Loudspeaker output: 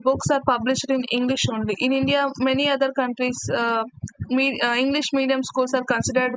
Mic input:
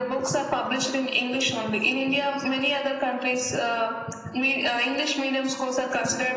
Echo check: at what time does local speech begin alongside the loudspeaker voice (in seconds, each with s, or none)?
none